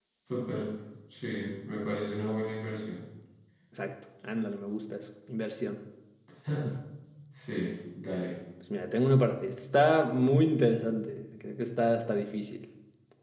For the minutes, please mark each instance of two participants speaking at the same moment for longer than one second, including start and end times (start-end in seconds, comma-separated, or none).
none